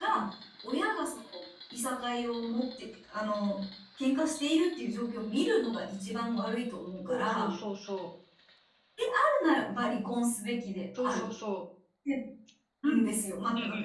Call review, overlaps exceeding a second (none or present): none